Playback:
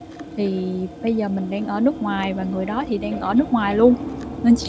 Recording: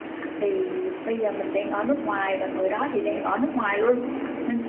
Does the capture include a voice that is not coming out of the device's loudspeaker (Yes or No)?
No